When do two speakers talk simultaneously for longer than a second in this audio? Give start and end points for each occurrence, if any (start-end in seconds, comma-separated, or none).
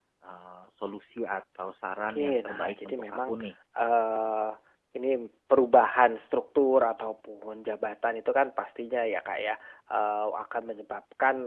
2.1-3.3